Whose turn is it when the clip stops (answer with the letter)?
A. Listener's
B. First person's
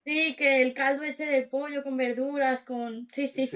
A